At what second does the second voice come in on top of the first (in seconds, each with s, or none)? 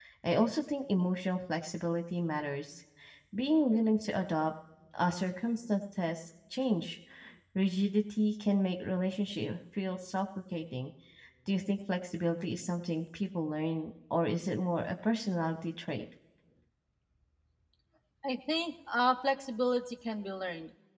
none